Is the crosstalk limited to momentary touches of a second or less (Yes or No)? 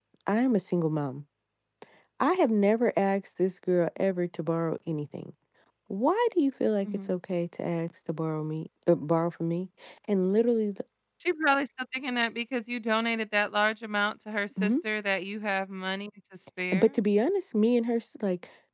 Yes